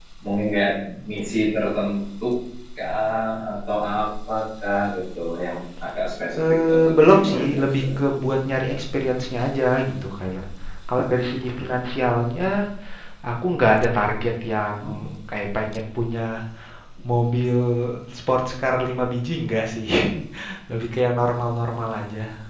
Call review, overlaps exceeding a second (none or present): present